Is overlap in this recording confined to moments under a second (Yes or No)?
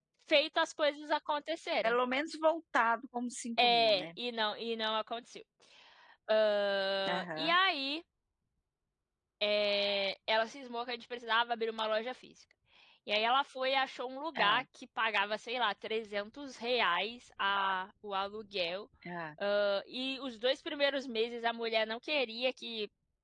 Yes